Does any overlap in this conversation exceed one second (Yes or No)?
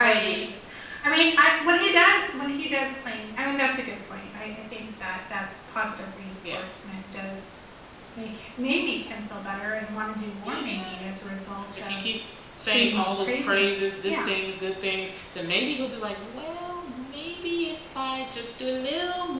Yes